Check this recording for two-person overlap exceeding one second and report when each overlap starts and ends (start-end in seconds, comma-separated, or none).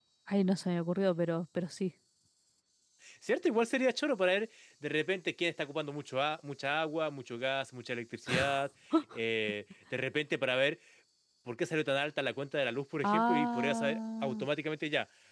13.0-14.5